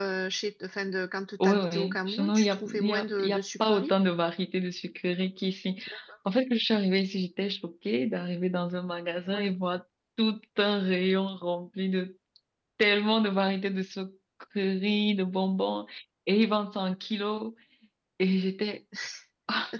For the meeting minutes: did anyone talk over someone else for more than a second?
Yes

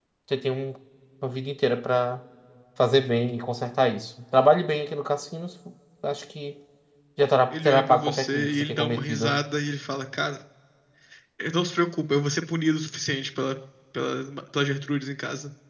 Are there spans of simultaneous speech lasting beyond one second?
Yes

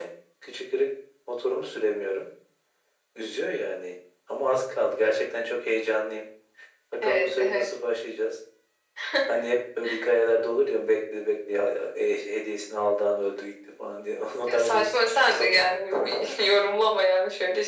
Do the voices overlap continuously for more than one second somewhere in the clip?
Yes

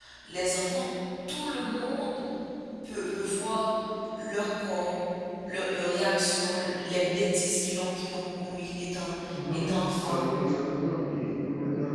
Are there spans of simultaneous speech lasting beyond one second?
No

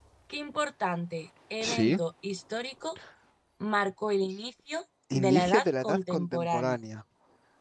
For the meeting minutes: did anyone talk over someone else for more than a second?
Yes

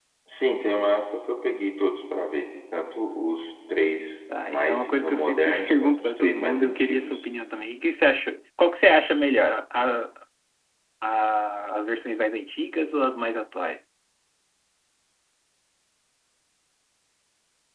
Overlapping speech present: Yes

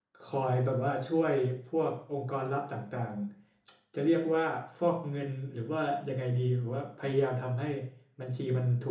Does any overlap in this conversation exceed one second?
No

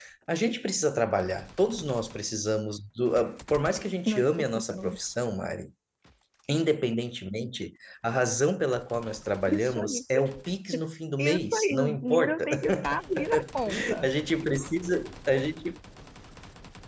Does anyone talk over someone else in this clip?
Yes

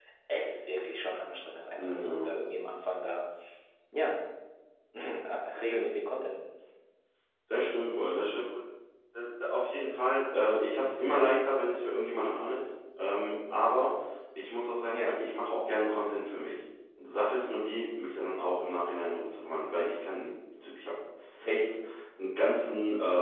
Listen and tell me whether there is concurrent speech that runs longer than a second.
No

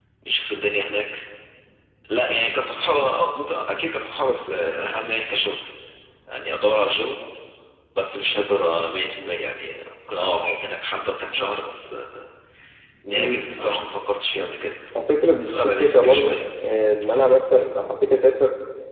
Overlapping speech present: Yes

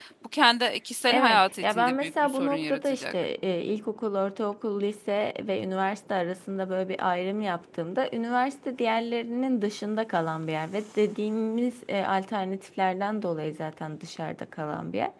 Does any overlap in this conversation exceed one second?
Yes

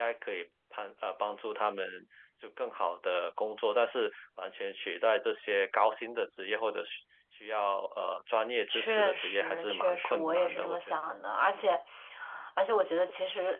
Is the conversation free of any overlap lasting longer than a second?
No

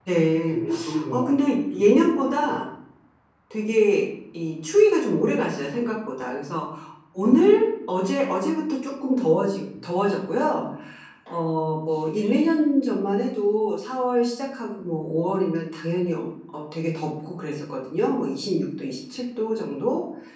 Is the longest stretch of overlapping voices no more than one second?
No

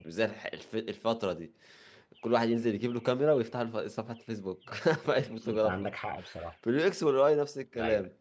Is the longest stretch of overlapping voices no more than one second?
Yes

